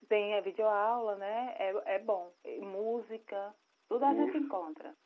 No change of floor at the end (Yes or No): Yes